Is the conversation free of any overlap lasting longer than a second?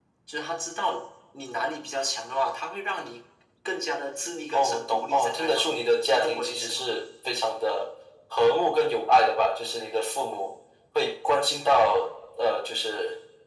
No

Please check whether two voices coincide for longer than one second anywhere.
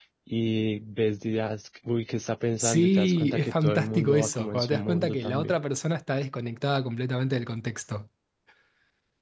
Yes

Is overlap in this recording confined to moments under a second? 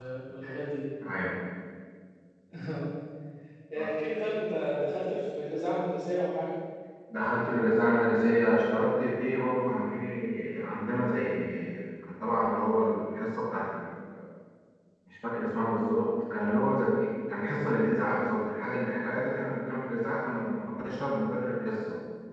Yes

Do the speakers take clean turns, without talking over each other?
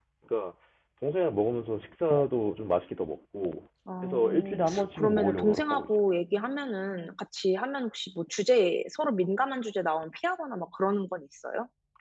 No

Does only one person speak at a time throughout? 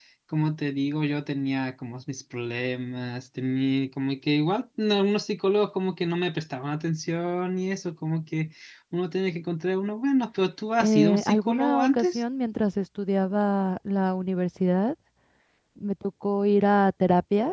No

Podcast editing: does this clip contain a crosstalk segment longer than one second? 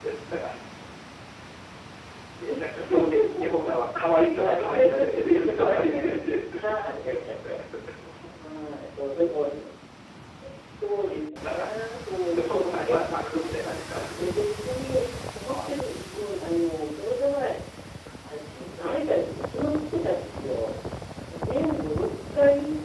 Yes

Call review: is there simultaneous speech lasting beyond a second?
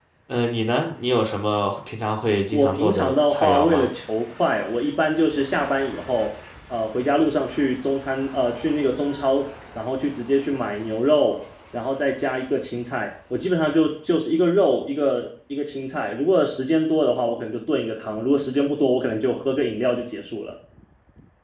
Yes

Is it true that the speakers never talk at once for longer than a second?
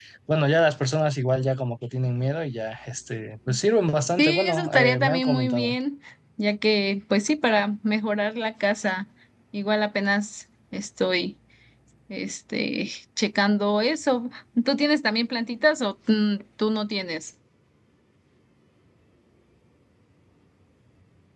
No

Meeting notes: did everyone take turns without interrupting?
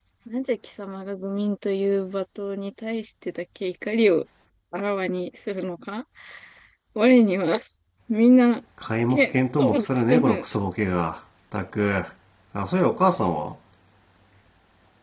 No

